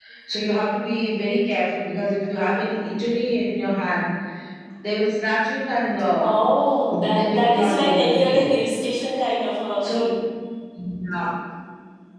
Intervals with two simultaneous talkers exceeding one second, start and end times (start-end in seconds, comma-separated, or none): 6.9-8.6